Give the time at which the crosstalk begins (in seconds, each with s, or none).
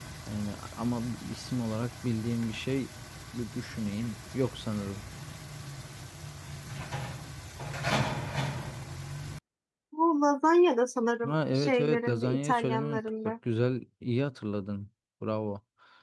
11.2 s